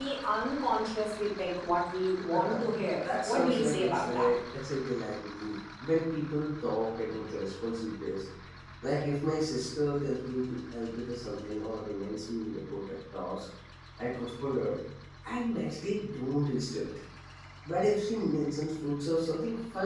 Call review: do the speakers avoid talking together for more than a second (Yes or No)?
No